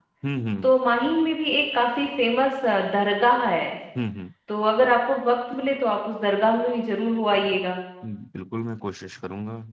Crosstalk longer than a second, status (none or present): none